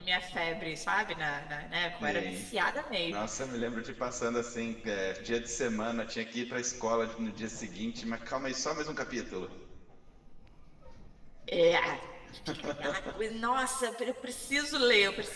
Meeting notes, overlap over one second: none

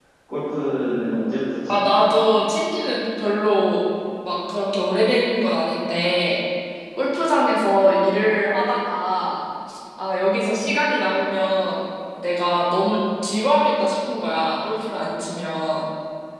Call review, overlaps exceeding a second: none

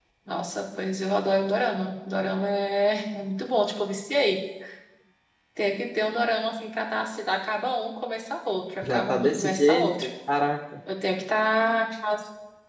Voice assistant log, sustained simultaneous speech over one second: present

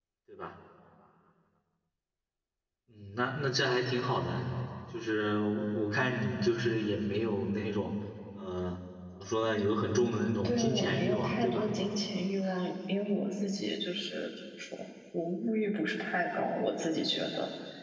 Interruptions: present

